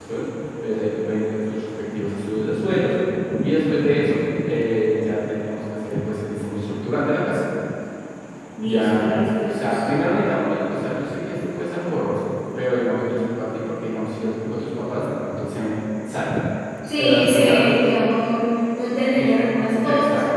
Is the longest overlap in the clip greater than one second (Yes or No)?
Yes